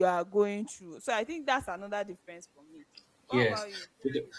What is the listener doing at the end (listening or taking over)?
taking over